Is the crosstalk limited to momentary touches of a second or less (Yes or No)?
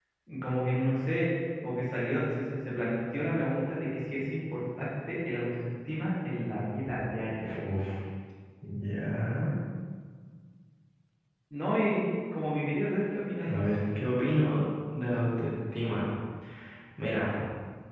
Yes